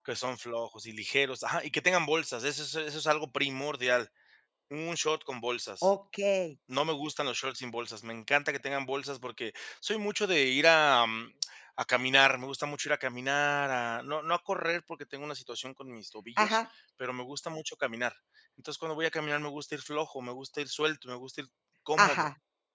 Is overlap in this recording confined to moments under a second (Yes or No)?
Yes